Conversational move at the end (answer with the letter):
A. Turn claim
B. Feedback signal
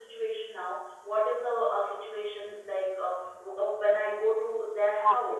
B